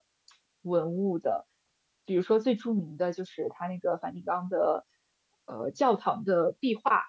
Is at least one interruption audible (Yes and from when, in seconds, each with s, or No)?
No